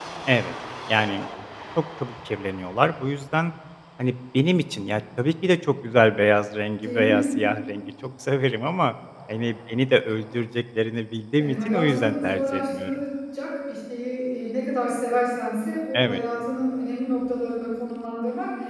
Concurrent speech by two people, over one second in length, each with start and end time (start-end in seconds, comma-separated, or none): 11.4-13.0